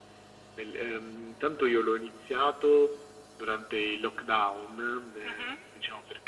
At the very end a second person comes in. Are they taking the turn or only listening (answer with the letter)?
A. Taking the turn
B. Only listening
B